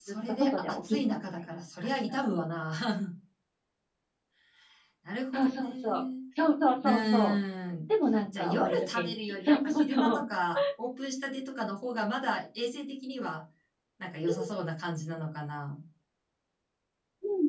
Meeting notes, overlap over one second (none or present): present